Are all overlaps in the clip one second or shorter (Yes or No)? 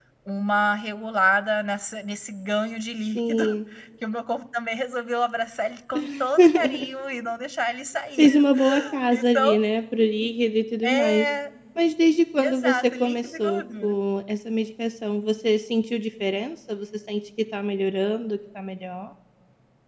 No